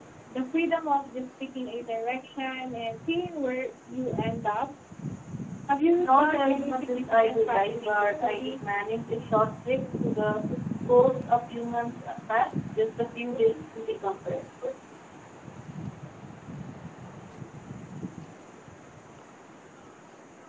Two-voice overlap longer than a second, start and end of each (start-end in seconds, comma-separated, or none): 6.0-8.5